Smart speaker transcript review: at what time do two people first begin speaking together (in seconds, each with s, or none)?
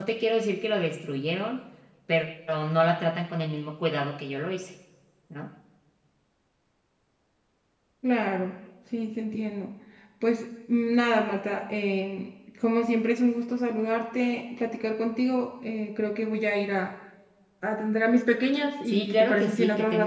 18.9 s